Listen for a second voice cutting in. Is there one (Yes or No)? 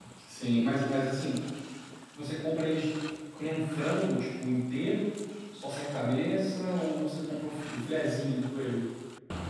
No